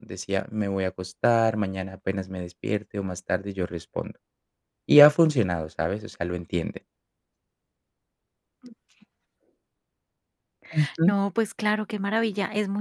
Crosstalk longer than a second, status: none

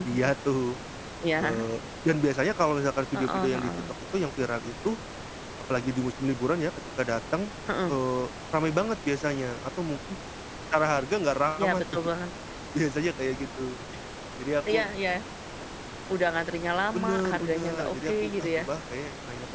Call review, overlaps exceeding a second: present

